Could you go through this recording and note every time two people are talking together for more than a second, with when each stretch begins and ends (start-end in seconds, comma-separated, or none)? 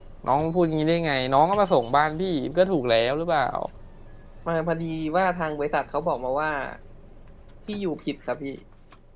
none